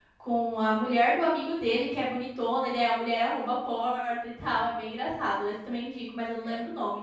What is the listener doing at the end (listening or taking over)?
taking over